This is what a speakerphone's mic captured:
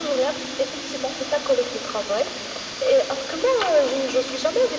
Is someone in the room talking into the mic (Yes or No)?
No